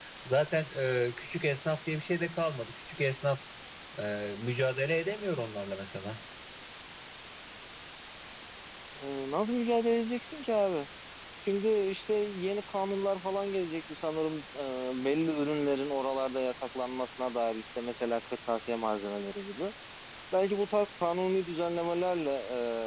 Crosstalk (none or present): none